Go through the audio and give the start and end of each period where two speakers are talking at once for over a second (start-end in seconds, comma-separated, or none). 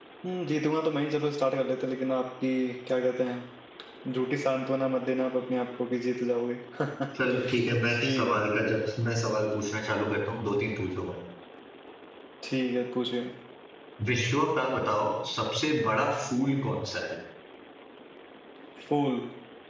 none